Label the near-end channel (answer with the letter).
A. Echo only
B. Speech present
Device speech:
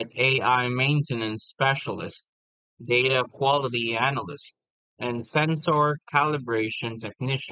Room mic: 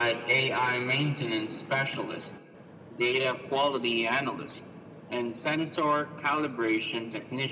A